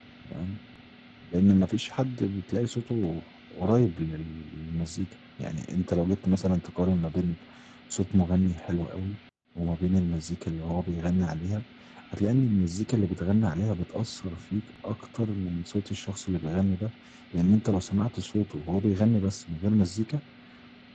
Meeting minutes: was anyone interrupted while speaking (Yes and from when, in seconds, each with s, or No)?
No